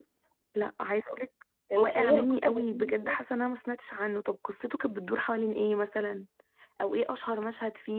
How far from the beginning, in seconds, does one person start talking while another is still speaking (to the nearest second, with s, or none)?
2 s